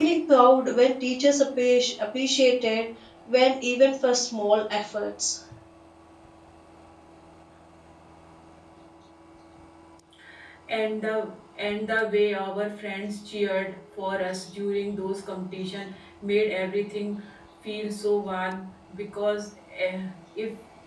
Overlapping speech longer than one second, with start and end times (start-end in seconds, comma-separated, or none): none